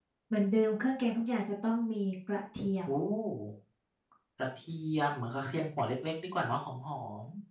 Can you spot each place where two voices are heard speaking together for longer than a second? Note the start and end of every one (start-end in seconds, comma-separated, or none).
none